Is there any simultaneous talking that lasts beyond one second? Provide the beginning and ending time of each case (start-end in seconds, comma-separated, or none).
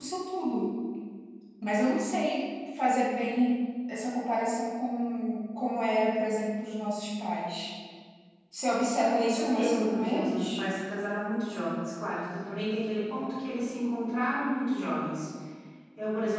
9.0-10.6